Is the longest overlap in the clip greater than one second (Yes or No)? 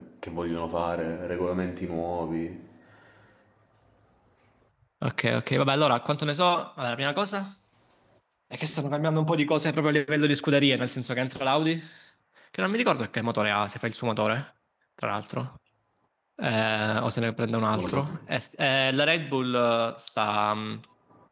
No